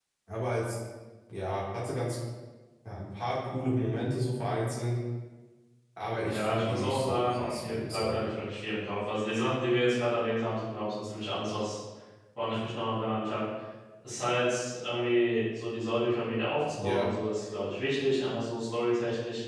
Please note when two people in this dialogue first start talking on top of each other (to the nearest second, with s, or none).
6 s